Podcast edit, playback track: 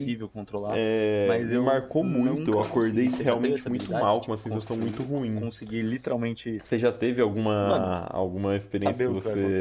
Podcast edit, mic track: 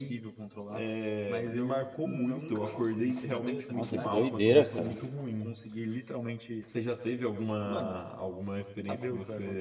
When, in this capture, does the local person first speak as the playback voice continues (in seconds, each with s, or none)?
3.8 s